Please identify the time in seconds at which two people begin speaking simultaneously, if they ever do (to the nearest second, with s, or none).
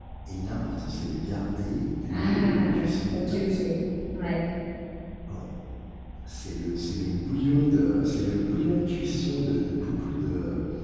2 s